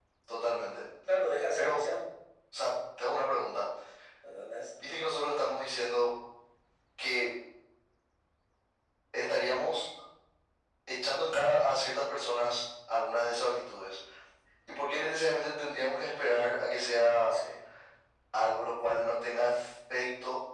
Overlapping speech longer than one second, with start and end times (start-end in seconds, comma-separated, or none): none